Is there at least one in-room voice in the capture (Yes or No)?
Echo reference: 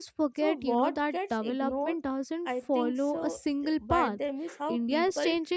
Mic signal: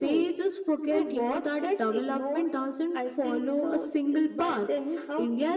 No